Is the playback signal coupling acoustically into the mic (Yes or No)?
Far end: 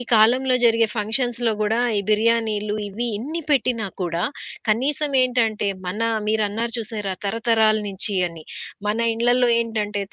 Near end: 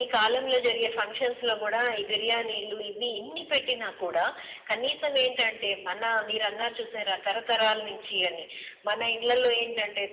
Yes